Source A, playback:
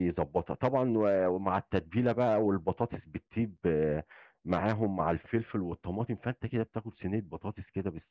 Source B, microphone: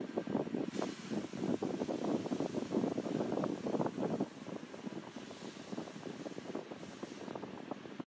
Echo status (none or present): none